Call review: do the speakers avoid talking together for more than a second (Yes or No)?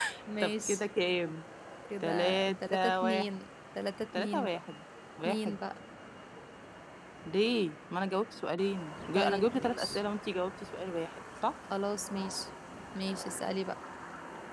No